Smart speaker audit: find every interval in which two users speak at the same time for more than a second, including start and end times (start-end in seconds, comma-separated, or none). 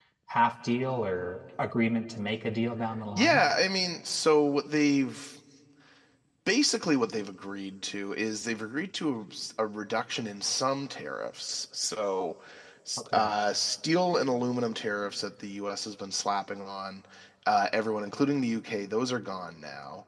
none